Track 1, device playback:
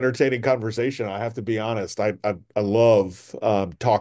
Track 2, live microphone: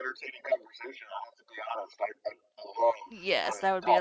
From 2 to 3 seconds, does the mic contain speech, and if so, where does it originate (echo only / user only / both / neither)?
echo only